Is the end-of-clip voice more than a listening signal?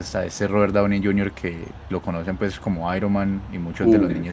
No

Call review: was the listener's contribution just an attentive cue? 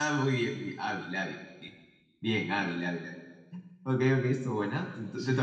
No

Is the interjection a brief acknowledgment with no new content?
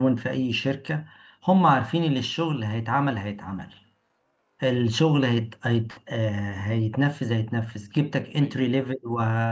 Yes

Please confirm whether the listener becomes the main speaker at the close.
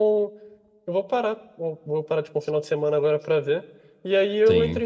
No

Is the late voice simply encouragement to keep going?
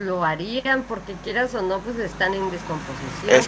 Yes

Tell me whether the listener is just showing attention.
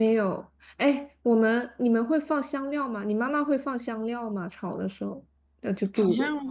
No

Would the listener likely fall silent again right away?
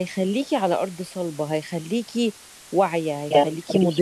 Yes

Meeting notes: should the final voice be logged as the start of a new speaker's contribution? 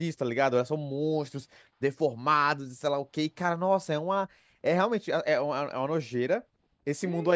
Yes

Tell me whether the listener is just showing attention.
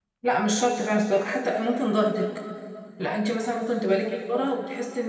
Yes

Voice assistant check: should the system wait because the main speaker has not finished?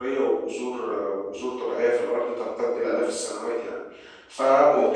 Yes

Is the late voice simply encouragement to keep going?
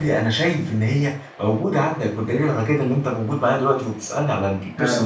No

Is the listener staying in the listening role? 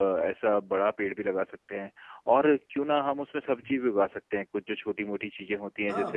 No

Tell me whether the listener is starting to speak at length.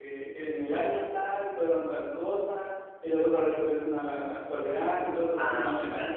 Yes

